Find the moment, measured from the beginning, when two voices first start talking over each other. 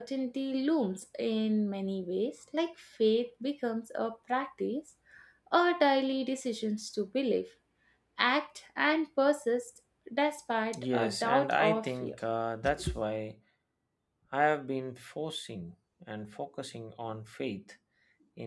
11 s

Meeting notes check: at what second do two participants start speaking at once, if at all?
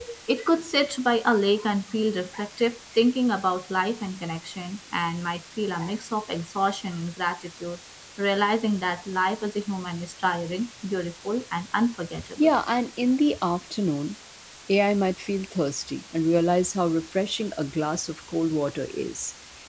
none

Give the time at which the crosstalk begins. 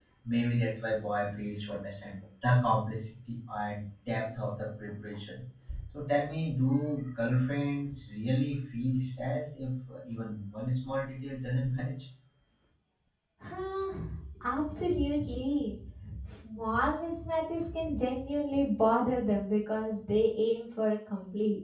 none

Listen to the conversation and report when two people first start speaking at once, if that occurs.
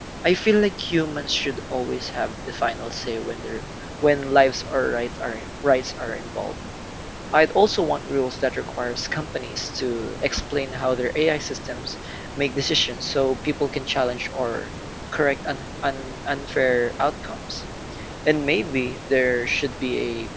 none

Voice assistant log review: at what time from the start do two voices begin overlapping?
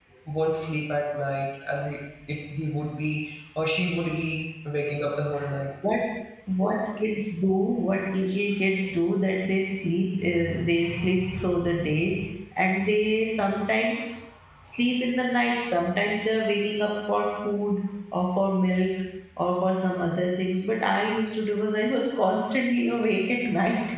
none

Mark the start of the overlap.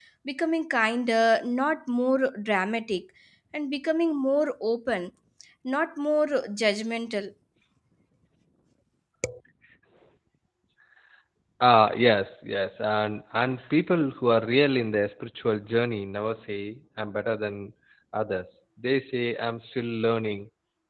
none

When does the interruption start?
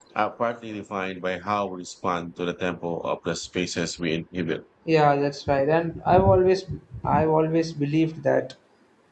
none

